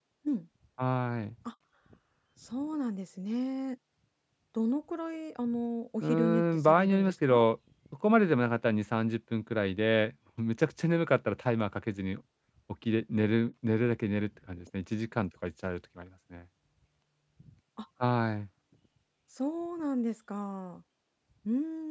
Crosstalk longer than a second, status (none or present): present